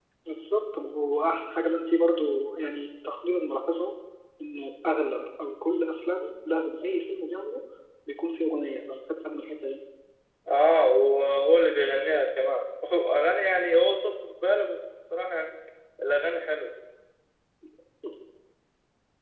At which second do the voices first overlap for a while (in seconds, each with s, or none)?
none